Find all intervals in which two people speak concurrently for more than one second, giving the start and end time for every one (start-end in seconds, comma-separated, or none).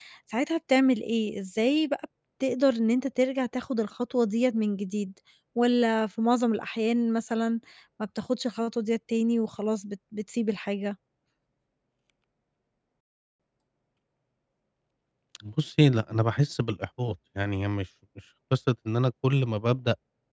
none